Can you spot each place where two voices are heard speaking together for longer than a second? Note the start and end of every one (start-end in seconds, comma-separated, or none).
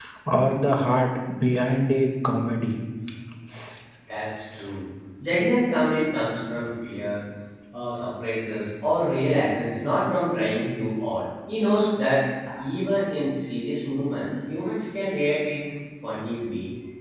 none